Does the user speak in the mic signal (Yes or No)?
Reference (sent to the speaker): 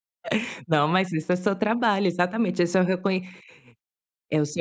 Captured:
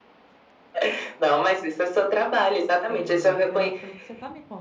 Yes